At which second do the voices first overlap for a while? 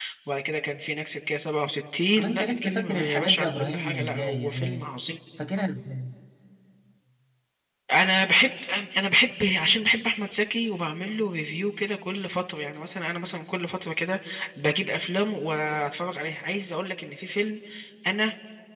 2.2 s

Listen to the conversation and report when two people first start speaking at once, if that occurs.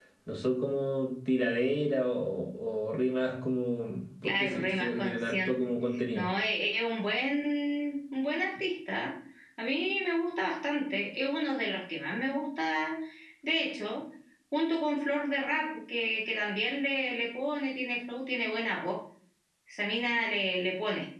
4.2 s

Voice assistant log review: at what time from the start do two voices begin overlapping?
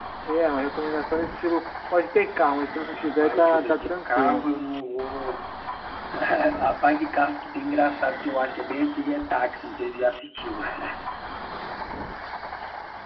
2.9 s

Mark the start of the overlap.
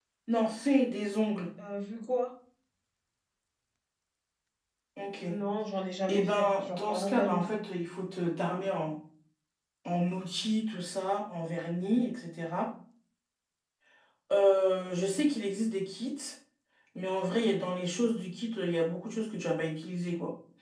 6.1 s

